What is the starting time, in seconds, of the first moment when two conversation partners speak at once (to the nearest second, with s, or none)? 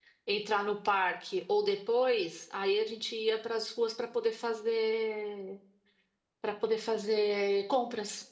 none